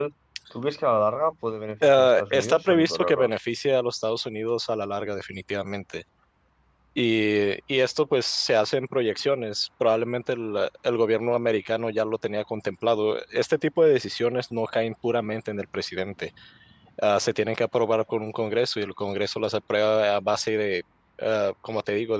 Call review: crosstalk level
present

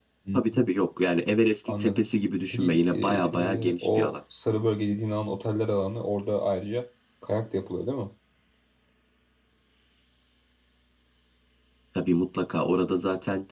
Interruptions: present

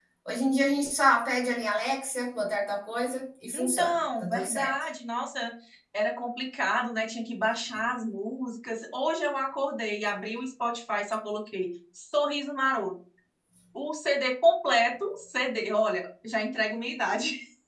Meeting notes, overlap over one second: present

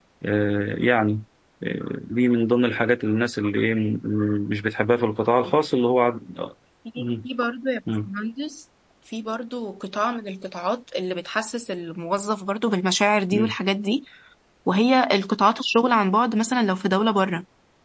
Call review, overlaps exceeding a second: none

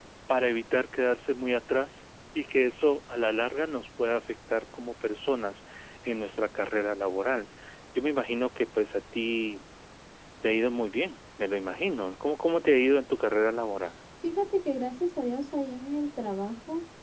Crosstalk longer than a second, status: none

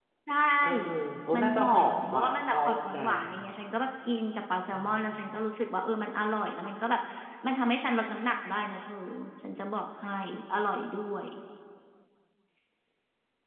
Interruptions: present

